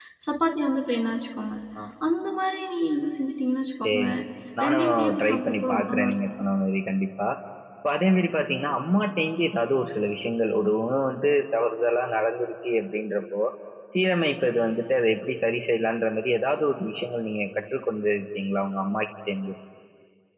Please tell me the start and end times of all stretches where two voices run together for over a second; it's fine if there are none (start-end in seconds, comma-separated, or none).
4.7-6.2